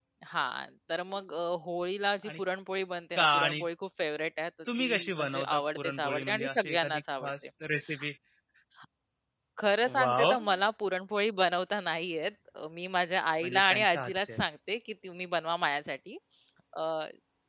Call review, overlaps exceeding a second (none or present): present